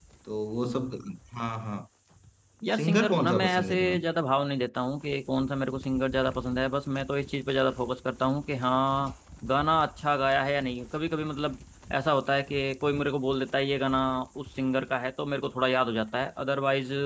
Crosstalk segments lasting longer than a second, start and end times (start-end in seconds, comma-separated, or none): 2.8-4.0